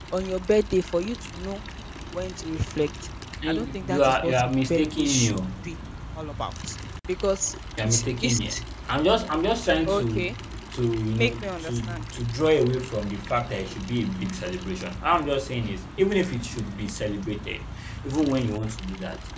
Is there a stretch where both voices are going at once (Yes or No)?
Yes